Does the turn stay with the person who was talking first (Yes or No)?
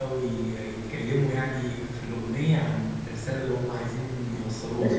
No